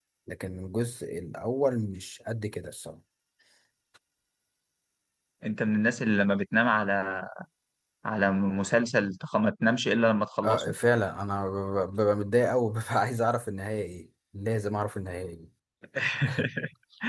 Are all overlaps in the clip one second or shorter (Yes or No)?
Yes